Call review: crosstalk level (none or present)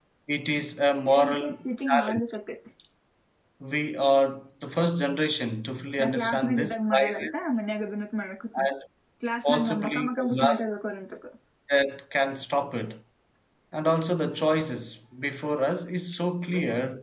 present